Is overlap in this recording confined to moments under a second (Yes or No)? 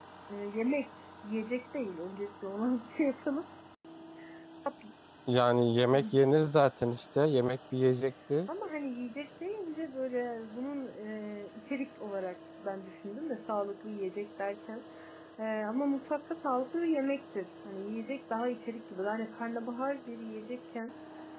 Yes